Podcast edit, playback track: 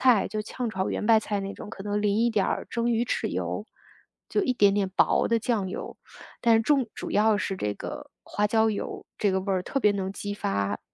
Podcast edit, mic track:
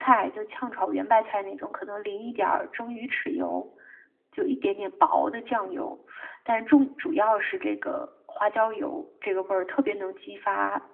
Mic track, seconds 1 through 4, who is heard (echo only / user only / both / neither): echo only